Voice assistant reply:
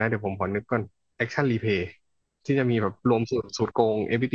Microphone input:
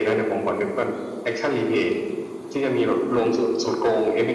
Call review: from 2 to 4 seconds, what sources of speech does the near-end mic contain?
echo only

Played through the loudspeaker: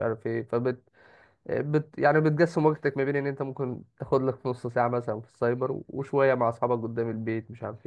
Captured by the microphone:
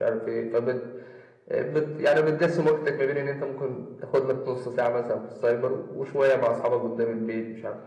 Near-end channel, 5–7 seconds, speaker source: echo only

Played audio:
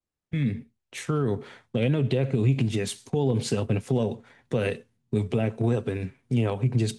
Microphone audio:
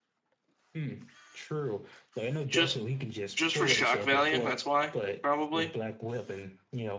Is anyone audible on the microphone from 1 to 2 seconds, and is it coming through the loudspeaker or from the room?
echo only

